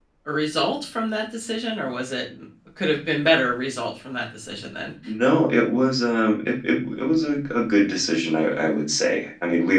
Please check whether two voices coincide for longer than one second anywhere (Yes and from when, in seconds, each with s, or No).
No